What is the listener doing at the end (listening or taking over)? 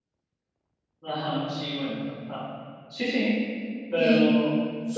taking over